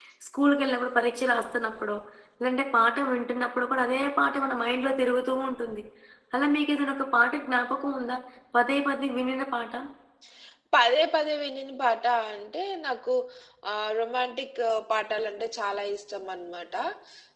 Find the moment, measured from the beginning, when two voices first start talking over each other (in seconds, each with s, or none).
none